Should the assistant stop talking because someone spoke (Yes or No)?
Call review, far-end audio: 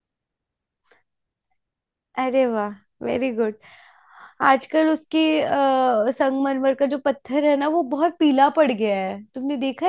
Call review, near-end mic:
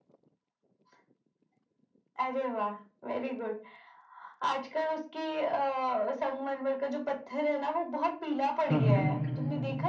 Yes